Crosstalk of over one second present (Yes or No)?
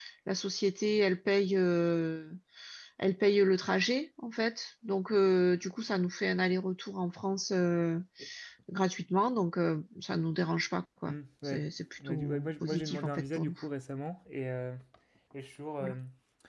Yes